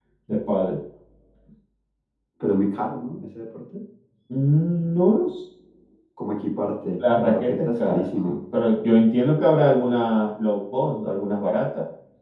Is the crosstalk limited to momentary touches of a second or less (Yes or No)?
No